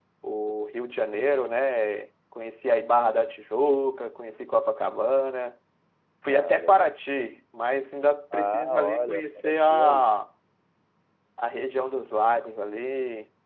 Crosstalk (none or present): present